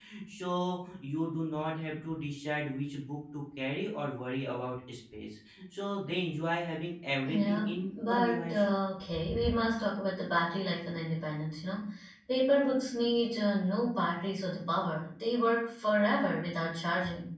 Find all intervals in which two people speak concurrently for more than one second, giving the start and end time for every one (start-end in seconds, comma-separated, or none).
7.2-8.6